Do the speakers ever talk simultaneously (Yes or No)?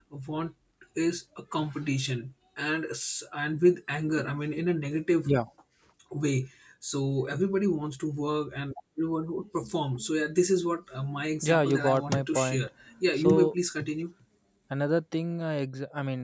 Yes